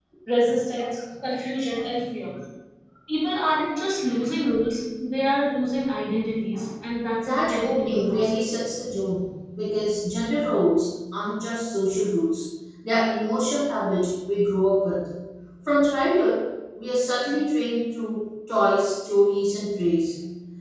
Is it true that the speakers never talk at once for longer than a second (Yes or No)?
No